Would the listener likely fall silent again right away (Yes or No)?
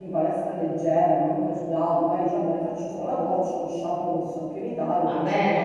No